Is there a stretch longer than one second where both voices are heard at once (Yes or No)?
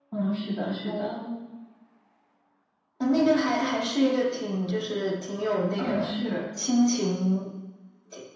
No